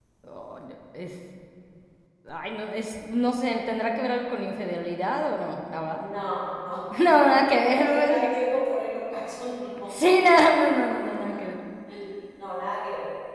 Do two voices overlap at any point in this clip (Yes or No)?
Yes